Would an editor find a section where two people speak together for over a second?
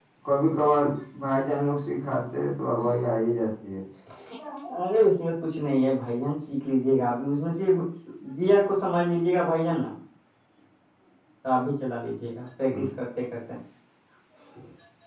No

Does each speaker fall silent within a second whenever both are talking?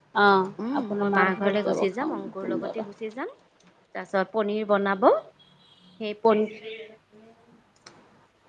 No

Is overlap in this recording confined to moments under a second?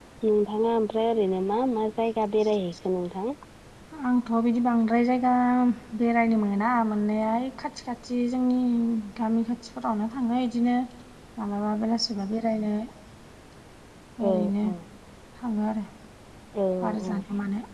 Yes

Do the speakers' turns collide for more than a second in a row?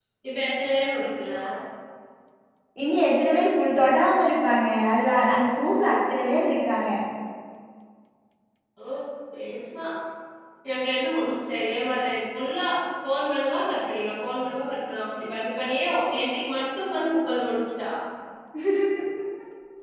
No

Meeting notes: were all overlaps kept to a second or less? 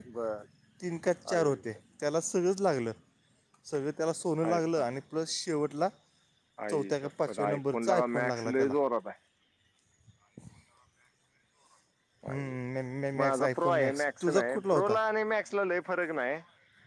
No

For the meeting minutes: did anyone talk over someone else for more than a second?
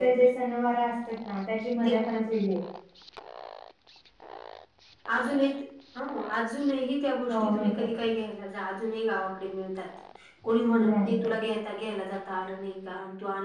No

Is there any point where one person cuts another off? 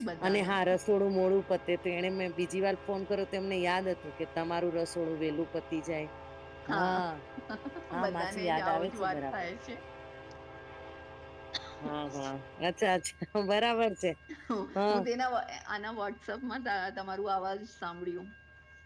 Yes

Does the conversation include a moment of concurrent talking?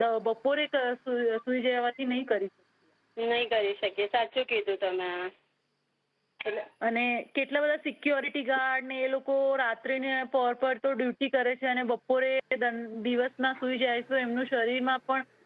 No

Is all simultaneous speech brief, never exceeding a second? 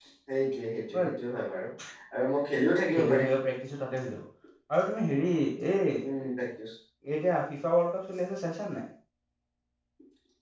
Yes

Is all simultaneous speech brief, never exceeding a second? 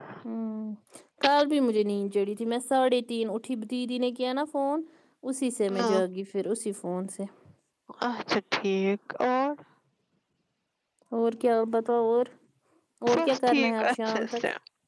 No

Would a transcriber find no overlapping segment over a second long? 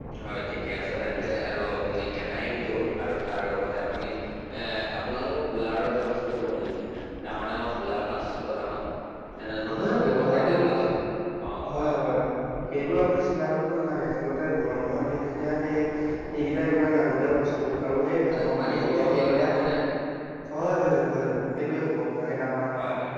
No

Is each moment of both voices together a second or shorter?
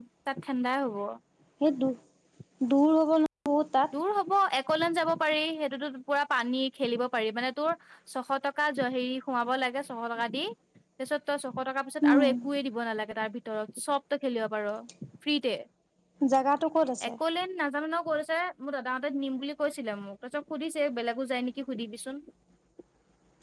Yes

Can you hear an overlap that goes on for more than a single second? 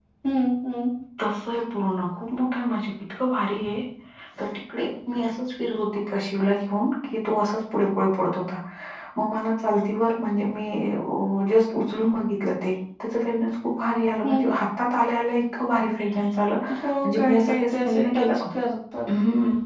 Yes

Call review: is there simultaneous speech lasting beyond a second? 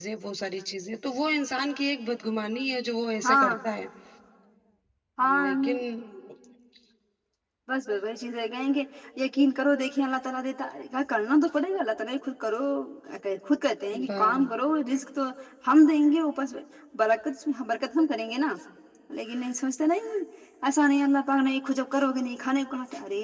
No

